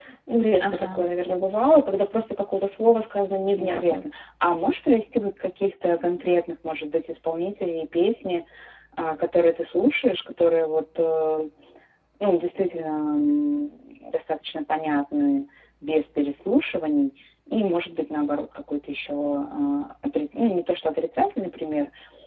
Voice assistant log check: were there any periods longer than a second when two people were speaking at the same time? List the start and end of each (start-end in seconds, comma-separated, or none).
none